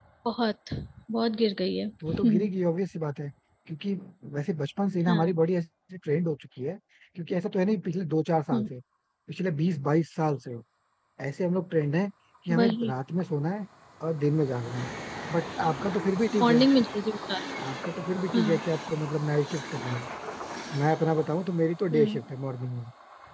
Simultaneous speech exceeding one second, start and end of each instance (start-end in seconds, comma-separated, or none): none